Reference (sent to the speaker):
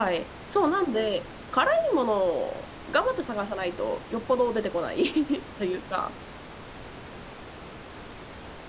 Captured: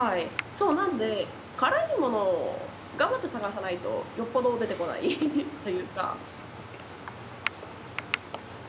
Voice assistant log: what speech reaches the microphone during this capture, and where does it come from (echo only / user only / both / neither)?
echo only